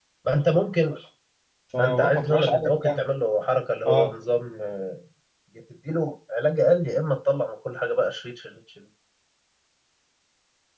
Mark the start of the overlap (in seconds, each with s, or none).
1.8 s